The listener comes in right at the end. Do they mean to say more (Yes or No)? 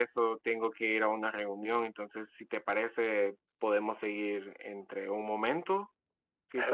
Yes